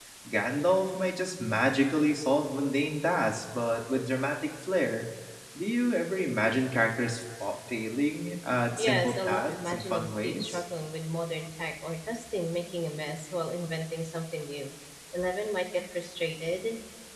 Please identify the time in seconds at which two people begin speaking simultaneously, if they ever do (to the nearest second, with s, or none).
9 s